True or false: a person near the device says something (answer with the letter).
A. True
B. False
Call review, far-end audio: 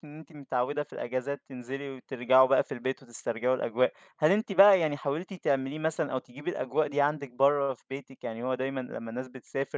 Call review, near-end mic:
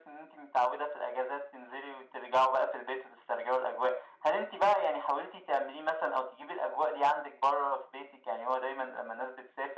B